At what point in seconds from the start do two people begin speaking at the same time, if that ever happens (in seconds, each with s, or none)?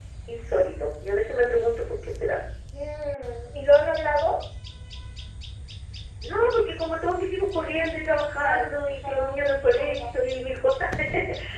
8.4 s